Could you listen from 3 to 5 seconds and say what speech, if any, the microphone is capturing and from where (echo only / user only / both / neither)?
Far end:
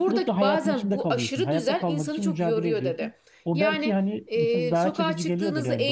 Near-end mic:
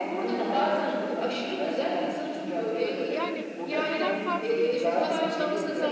both